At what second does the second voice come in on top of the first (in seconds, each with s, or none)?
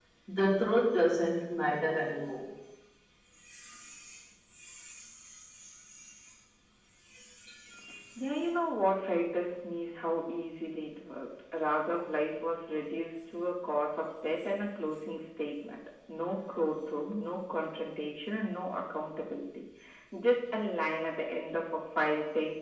none